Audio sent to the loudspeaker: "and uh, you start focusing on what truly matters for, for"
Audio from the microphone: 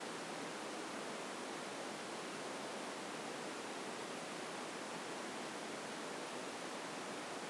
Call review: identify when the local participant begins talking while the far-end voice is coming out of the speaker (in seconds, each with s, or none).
none